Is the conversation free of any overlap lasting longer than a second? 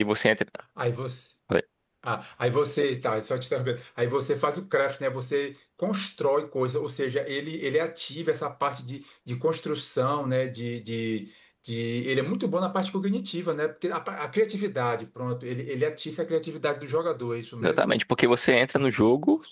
Yes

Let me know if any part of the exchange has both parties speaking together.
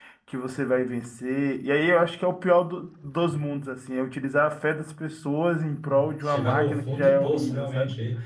Yes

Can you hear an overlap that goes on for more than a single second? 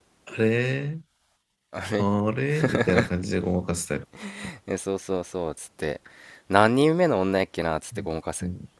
No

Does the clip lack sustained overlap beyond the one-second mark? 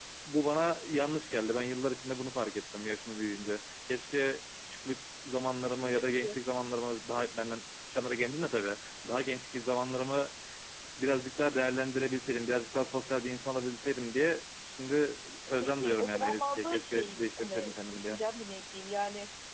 No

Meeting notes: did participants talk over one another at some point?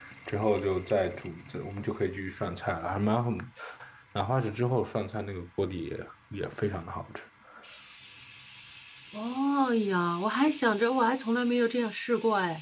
No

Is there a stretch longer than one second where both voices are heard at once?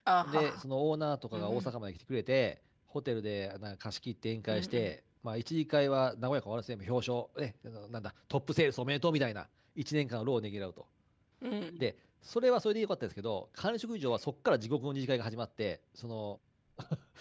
No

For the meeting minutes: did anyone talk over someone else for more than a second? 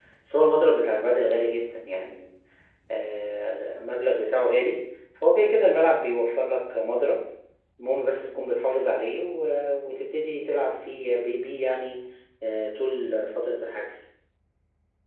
No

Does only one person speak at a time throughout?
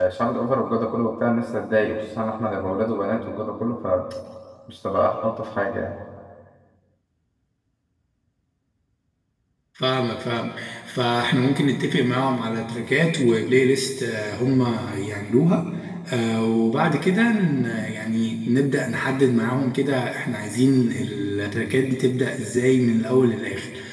Yes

